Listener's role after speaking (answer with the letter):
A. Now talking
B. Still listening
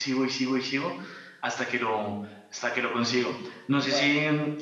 B